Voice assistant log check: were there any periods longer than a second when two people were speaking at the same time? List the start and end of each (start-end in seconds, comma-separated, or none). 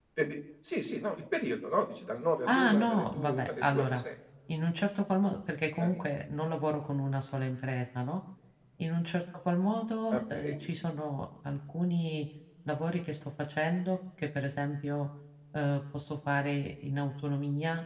2.5-4.0